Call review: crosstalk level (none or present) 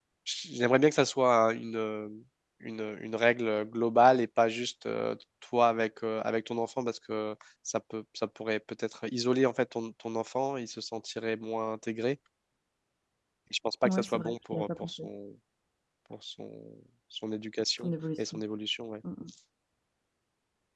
present